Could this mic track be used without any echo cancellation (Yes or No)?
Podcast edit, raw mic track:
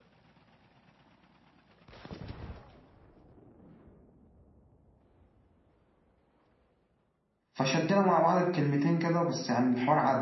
Yes